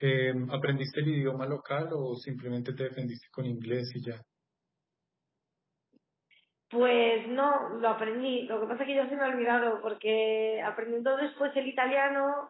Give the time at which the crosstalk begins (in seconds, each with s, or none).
none